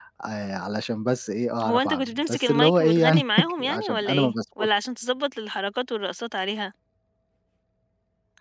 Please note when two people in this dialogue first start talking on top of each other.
2 s

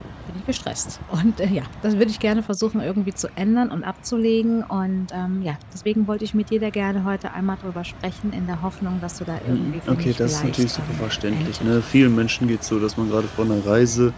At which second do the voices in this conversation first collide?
9 s

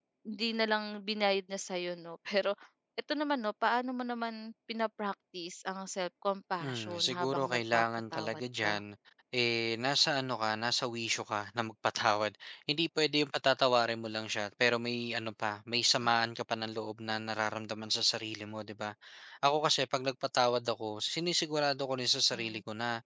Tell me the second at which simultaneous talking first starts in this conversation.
7 s

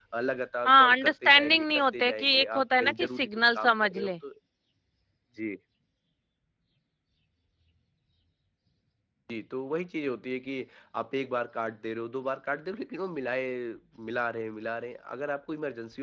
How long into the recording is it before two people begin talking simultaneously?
1 s

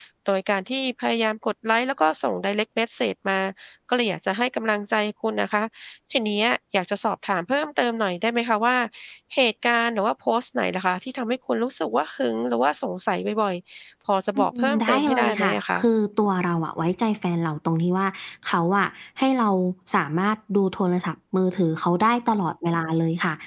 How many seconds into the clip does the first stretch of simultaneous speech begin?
14 s

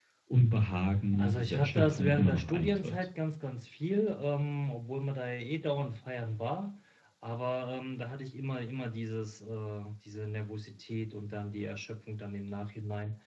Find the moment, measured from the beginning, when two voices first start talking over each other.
1 s

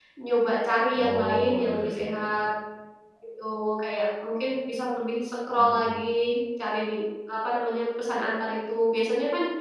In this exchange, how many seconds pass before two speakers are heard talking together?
1 s

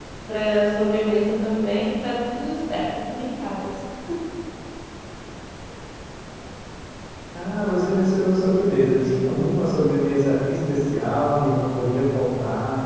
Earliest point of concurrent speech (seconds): none

